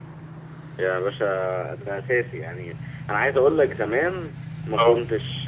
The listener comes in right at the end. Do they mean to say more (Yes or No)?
No